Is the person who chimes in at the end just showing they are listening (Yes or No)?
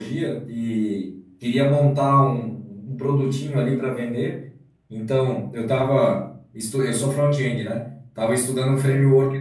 Yes